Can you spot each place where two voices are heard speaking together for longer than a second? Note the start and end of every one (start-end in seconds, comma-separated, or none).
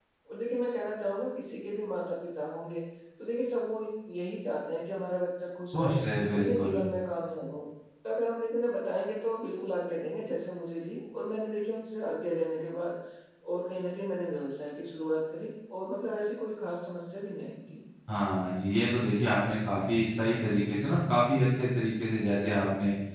none